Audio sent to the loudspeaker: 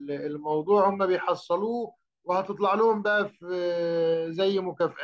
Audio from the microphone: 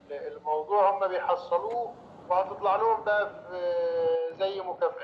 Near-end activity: none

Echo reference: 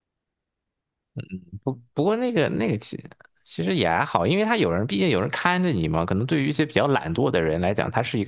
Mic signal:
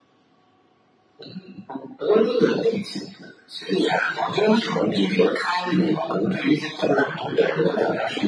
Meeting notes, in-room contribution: none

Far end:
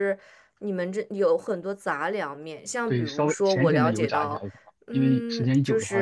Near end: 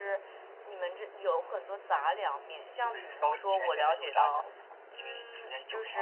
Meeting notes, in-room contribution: none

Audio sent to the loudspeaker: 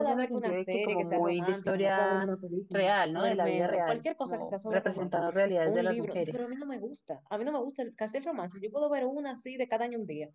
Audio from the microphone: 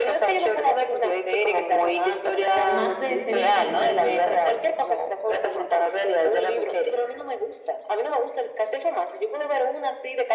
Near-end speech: present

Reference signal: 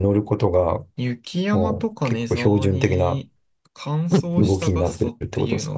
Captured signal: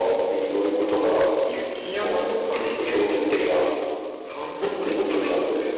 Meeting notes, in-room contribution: present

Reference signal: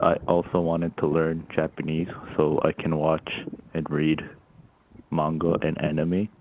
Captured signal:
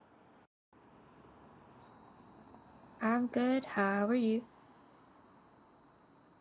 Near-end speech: present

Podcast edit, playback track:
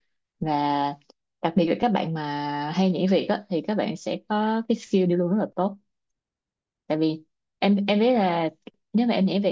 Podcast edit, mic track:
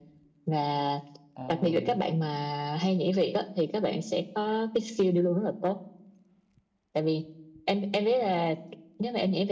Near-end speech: present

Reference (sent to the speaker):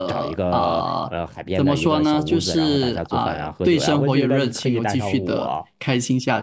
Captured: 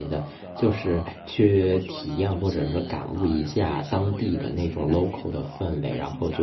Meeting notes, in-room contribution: present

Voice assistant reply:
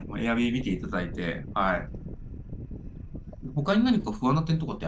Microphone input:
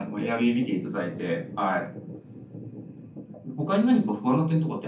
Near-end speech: none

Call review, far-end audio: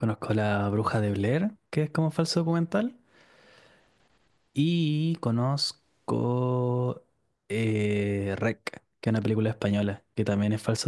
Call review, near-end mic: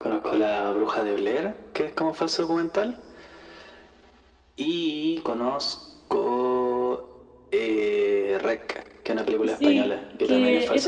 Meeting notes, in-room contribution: present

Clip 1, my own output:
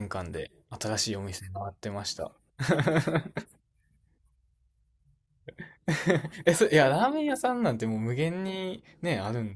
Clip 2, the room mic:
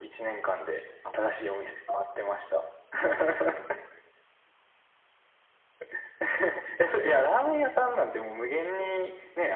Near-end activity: none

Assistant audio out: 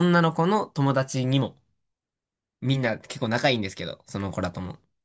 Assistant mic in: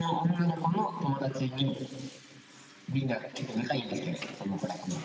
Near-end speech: none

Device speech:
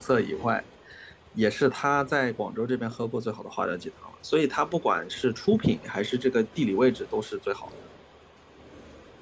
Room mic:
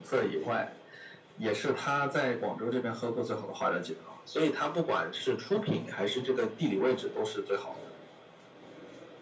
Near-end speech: none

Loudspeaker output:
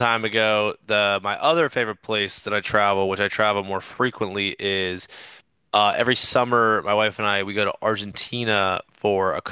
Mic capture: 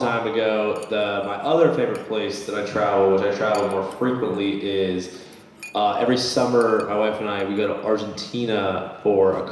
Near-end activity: none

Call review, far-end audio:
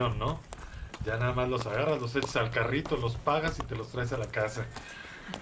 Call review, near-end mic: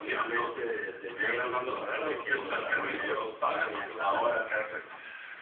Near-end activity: present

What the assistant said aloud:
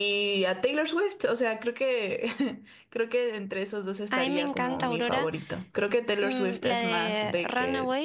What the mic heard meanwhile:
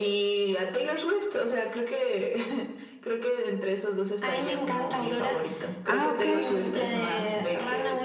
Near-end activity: present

